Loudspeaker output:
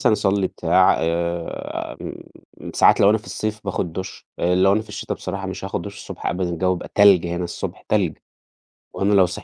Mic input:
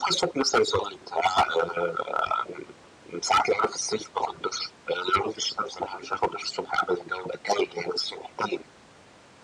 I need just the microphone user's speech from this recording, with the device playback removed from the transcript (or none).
none